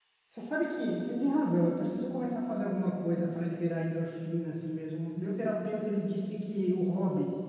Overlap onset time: none

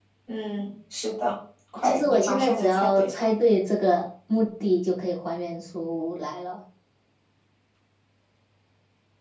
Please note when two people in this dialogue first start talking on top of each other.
1.8 s

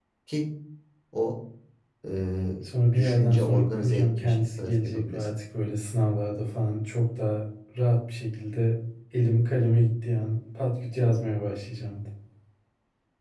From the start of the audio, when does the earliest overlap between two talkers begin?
3.0 s

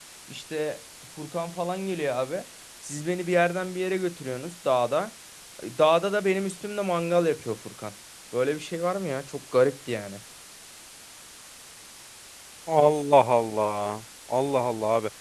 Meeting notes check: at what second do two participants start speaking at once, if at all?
none

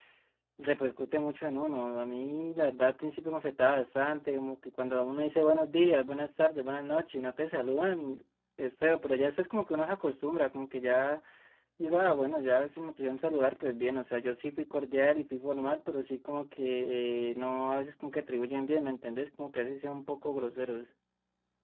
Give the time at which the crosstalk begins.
none

